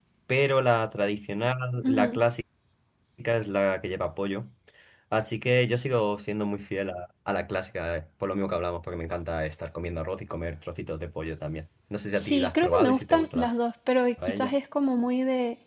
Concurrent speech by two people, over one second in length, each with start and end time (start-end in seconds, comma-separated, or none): 12.2-13.5